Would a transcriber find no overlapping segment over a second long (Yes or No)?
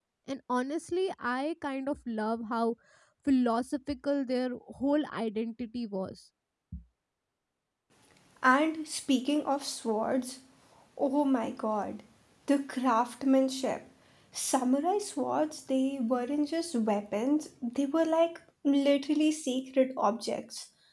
Yes